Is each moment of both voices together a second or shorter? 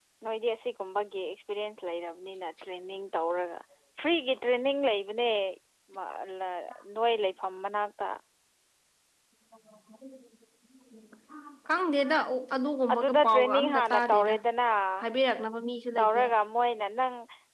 No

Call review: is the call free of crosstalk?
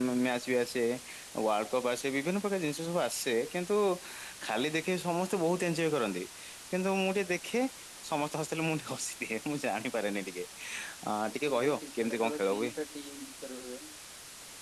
No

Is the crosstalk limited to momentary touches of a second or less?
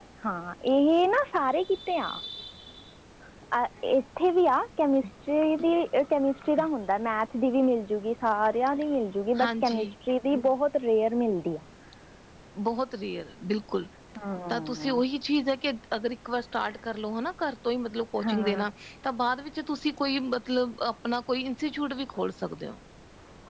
Yes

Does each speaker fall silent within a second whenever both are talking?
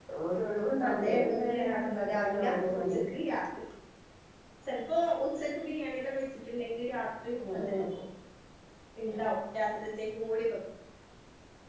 No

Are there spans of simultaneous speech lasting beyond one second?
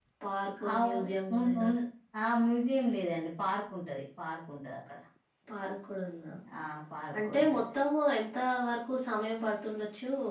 No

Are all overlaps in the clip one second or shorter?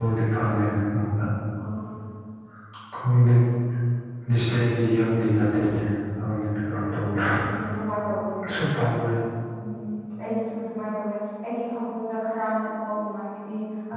Yes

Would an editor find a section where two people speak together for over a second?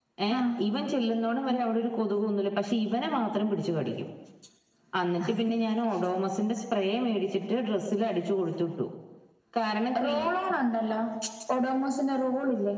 No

